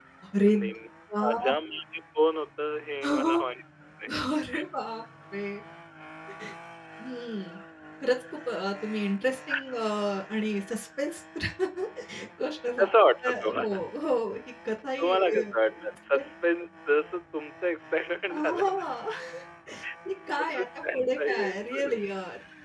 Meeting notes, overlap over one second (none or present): present